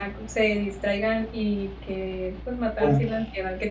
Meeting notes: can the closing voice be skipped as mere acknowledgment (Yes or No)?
Yes